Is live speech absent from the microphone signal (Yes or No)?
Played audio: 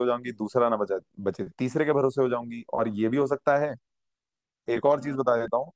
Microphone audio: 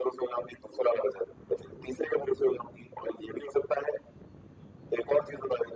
Yes